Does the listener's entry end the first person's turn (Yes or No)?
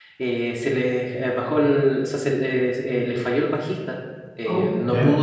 No